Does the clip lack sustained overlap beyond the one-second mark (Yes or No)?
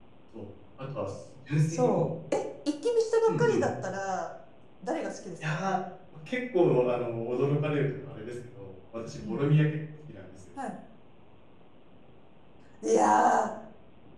Yes